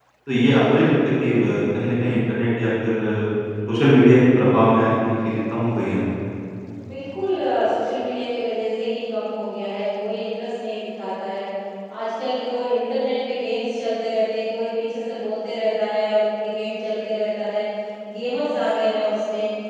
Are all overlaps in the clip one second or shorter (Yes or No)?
Yes